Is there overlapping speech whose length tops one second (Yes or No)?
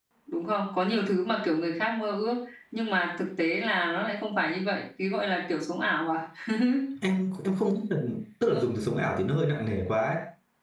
No